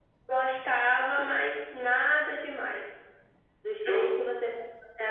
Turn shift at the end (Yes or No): No